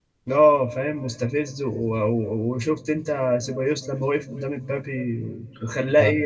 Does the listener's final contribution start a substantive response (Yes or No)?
Yes